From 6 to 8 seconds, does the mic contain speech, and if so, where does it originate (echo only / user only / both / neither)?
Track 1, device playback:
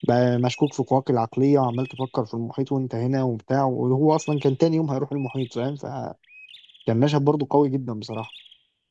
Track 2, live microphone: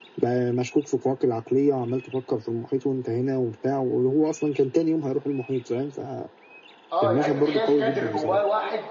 both